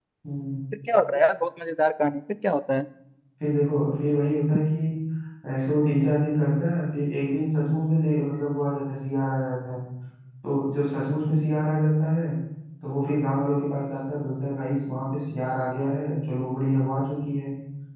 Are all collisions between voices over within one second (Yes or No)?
Yes